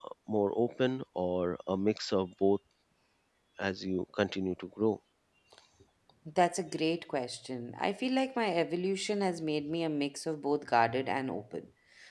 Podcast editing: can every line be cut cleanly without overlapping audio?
Yes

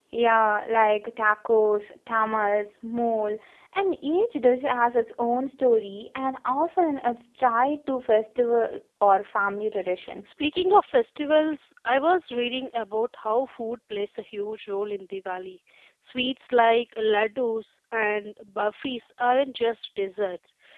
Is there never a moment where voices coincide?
Yes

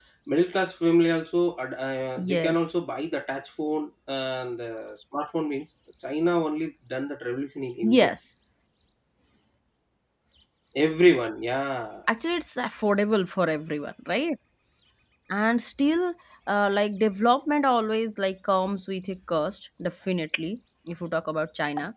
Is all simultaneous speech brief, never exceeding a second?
Yes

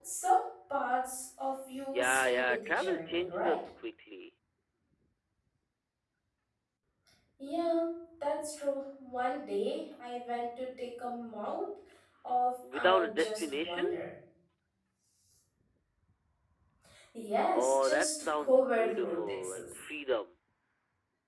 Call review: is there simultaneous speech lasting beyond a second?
Yes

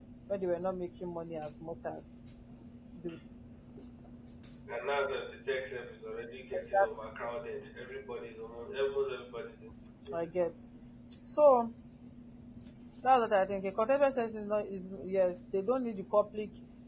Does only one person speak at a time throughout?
Yes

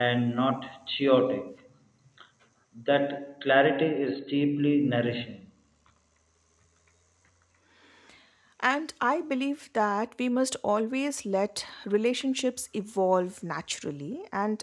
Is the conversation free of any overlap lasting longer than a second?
Yes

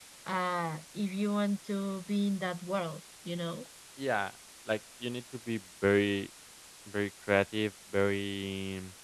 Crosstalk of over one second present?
No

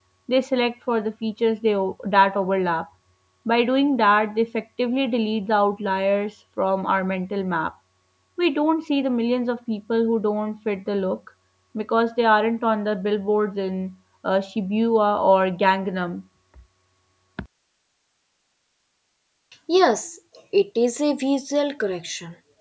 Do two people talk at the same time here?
No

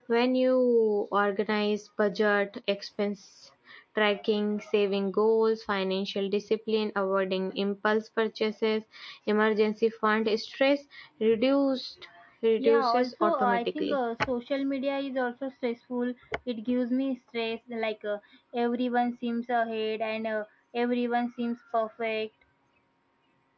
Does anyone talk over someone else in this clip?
Yes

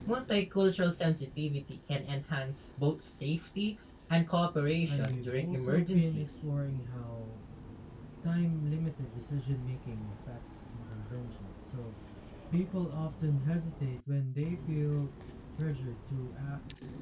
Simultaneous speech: Yes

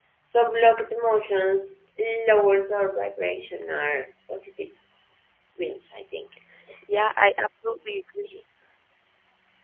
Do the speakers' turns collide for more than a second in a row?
No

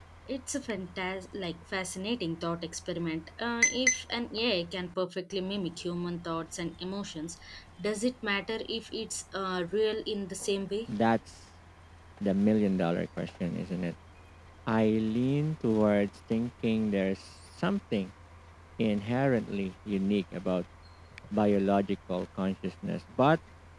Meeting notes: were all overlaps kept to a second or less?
Yes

